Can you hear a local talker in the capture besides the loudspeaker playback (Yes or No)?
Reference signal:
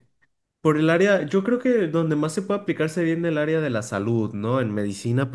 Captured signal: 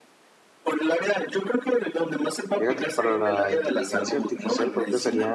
Yes